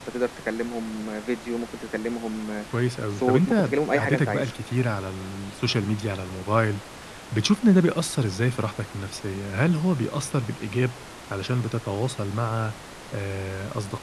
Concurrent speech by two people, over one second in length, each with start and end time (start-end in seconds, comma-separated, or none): 3.2-4.5